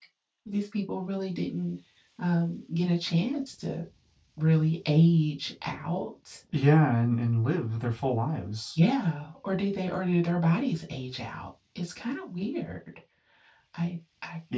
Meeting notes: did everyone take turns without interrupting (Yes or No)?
Yes